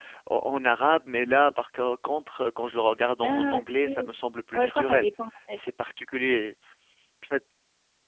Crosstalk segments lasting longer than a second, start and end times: none

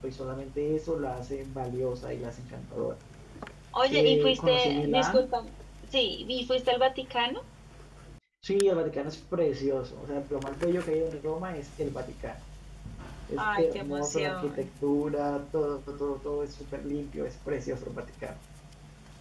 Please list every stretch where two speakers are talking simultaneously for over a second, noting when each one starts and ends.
3.9-5.3, 13.4-14.7

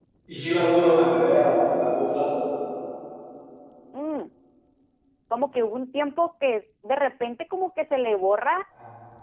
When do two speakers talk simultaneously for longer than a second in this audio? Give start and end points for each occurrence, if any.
none

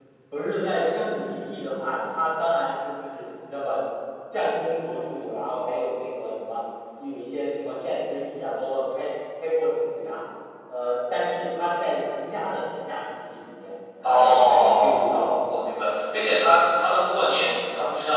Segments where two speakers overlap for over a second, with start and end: 14.0-15.4

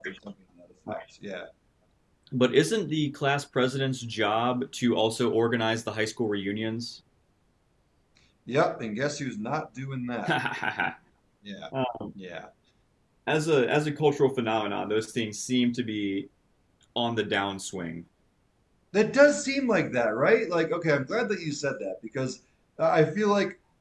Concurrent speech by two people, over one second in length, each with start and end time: none

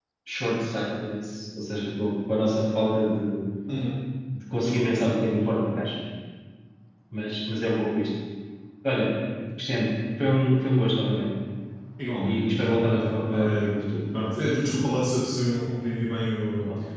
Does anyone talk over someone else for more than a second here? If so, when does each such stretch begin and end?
12.2-13.7

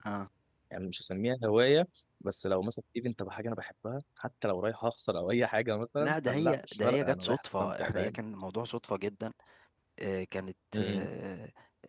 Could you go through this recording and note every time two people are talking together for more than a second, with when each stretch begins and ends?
6.0-8.2

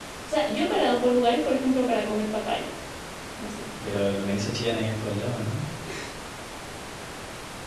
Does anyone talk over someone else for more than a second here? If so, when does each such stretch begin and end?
none

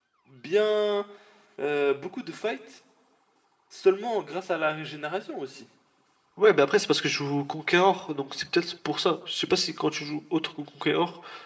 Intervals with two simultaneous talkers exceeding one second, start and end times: none

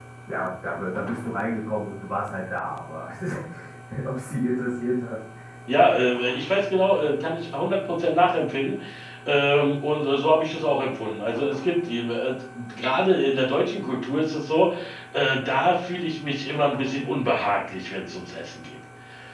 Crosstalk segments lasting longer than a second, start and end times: none

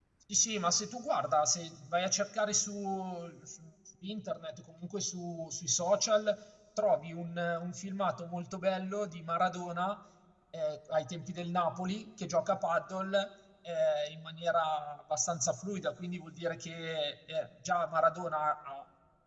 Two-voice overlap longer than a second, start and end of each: none

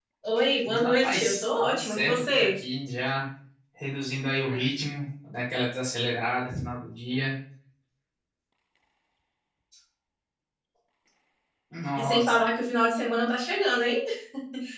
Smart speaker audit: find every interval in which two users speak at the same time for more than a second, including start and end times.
0.7-2.5

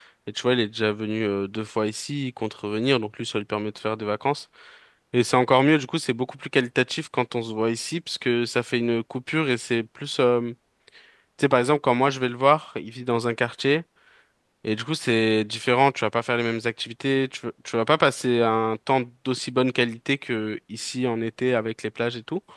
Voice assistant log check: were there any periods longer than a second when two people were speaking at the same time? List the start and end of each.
none

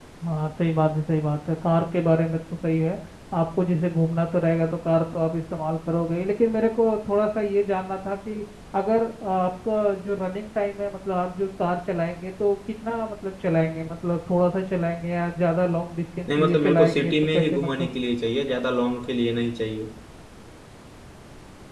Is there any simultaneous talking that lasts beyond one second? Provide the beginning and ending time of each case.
16.4-17.9

